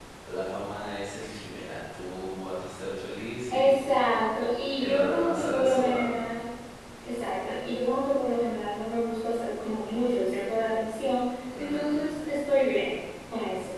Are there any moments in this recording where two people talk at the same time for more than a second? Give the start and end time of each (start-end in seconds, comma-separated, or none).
4.8-6.2